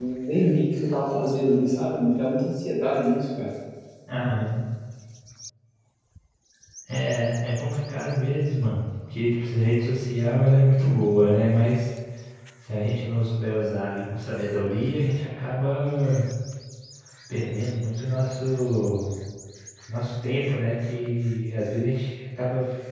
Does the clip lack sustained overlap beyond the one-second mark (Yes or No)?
Yes